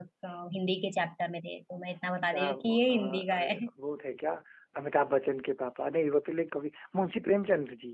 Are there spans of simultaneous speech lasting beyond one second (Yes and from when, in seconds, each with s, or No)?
Yes, from 2.3 s